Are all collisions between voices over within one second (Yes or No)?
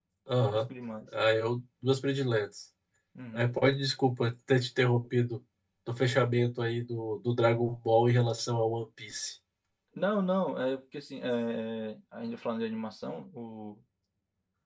Yes